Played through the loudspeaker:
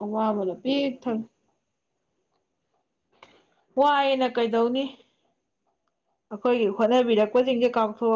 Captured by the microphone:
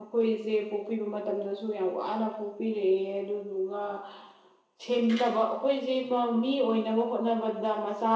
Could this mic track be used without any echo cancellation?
Yes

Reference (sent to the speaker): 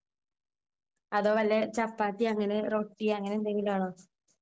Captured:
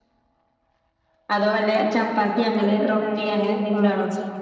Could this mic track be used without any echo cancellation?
No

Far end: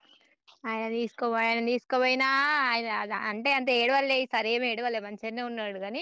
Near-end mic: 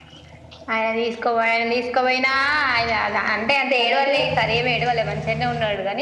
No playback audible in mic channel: No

